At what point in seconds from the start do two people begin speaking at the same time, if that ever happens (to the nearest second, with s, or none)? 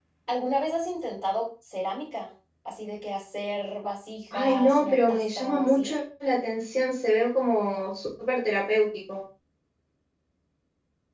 4 s